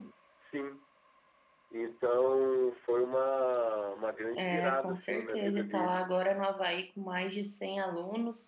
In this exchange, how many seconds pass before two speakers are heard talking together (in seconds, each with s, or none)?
4.3 s